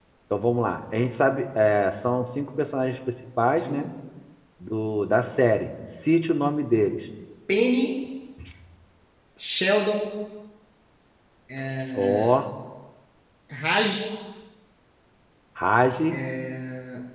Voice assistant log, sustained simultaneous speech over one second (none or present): none